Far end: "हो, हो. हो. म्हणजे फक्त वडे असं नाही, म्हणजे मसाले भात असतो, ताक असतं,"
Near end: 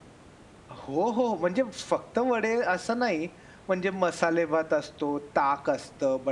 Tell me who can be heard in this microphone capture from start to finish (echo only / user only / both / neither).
echo only